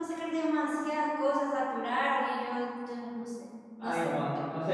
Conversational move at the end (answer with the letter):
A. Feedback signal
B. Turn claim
B